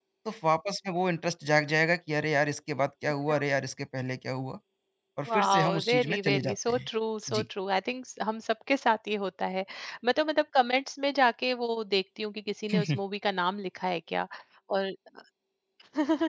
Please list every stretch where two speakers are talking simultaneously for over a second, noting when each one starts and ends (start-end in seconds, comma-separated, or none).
5.3-6.9